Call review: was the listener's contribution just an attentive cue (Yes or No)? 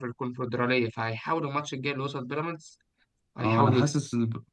No